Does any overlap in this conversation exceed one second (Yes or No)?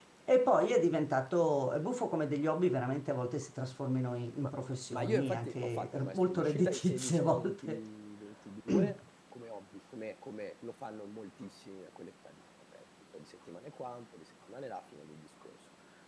Yes